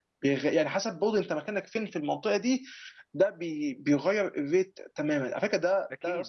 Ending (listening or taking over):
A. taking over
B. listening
B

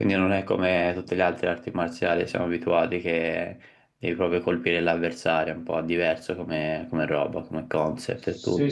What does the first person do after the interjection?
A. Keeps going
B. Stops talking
B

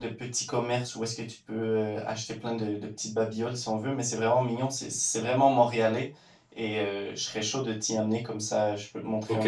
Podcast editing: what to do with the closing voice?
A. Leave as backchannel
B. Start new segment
B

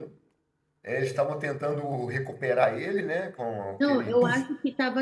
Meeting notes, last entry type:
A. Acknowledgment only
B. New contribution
B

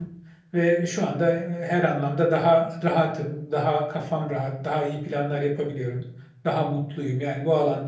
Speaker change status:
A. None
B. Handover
A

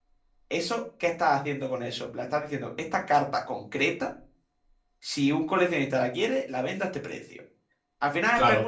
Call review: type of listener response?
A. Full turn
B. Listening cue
B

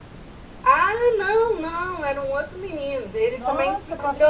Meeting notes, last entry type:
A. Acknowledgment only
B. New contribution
B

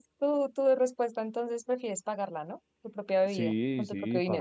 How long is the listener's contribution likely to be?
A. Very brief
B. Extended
B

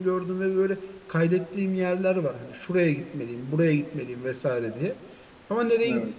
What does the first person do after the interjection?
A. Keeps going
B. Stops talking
A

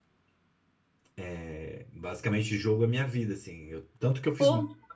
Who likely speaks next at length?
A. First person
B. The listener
A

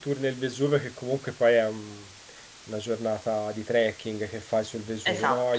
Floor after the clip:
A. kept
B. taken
A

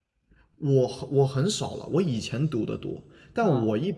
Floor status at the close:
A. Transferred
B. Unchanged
B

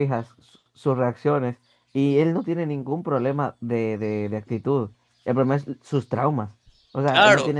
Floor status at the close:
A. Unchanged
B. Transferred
A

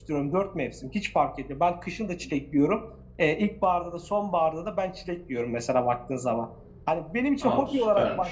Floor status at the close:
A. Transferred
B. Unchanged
B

